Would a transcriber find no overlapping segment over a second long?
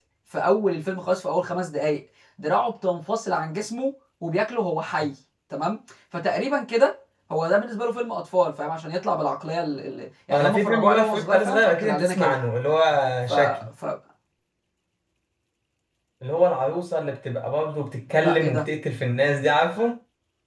No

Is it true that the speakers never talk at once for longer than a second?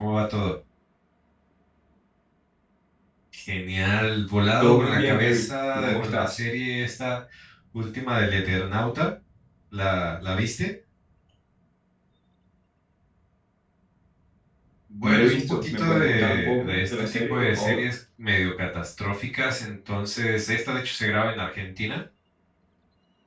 No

